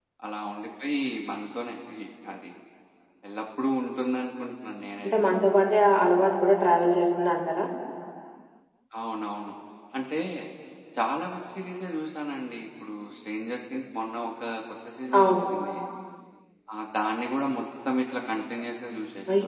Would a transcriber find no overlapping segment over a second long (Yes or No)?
Yes